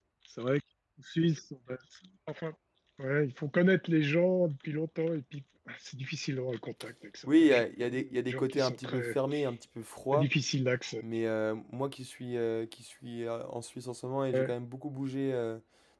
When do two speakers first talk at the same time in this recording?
7.3 s

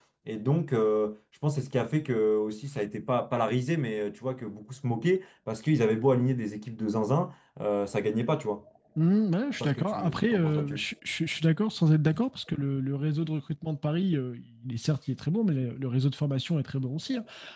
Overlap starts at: 9.6 s

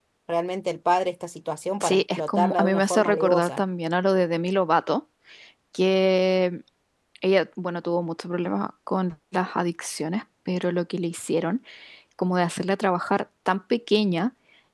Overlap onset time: 1.8 s

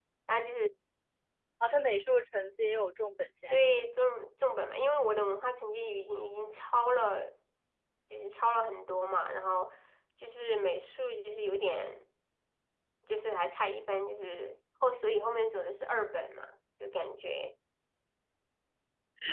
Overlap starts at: none

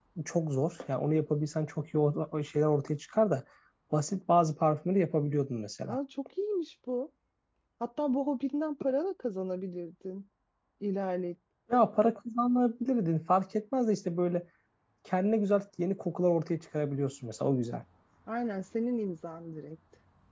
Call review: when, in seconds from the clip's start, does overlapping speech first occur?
none

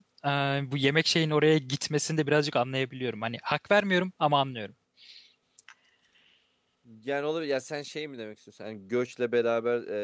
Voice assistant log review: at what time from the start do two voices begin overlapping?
none

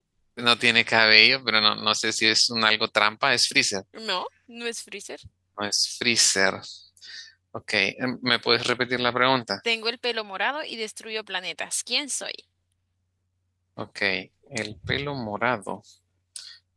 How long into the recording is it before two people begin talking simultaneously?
none

